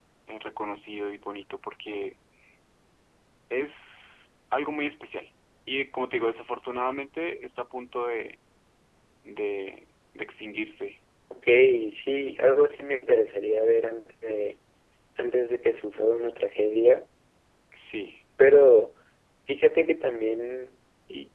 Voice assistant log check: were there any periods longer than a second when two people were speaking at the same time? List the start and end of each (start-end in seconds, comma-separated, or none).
none